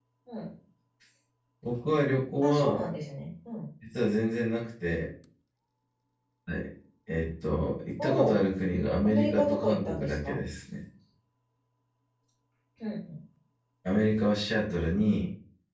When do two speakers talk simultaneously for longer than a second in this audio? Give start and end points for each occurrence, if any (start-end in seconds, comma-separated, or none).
9.0-10.4